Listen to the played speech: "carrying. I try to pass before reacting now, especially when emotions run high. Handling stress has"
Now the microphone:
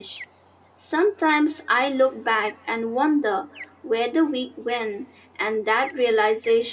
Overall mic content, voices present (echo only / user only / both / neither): user only